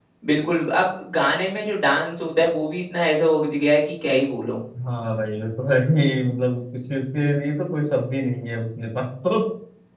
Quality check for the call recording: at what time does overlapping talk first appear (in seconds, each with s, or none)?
none